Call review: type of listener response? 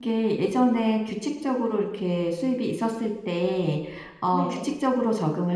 listening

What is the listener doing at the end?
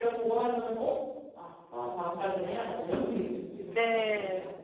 taking over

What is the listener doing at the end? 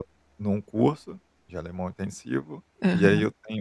listening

